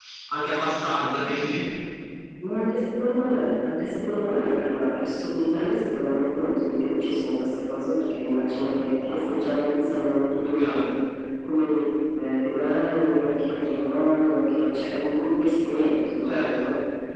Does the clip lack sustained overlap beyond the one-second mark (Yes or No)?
Yes